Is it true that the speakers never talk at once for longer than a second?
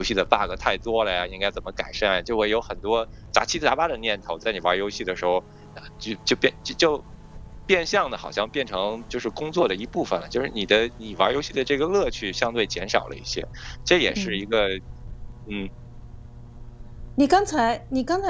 Yes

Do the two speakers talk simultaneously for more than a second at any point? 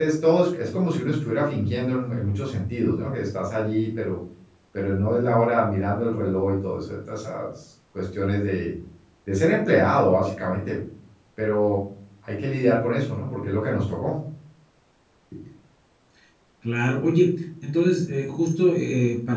No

